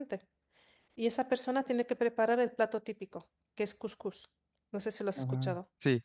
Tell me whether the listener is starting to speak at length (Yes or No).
Yes